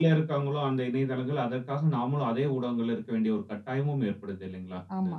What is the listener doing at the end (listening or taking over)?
taking over